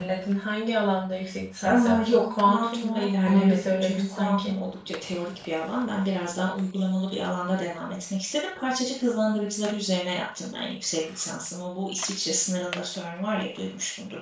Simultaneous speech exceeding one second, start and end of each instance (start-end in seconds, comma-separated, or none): 1.6-4.5